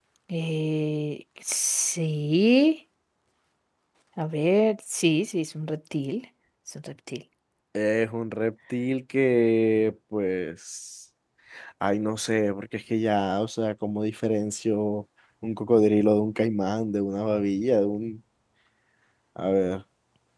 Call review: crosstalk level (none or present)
none